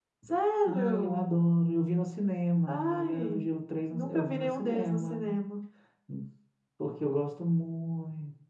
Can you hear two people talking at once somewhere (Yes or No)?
Yes